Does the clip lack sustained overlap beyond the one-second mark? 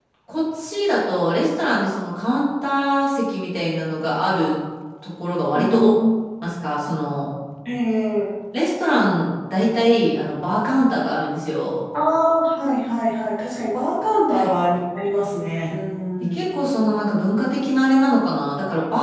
Yes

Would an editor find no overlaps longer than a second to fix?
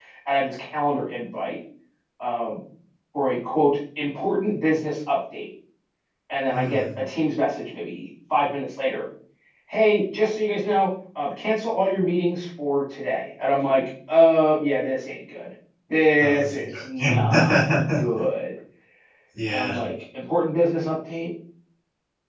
No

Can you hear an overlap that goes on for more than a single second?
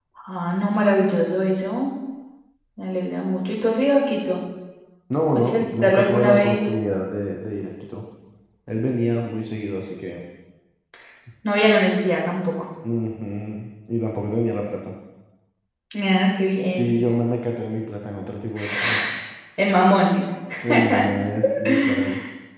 Yes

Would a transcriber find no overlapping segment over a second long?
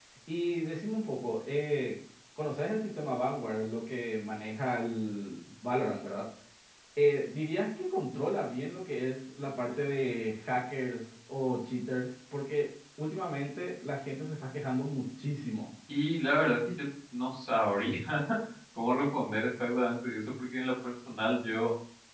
Yes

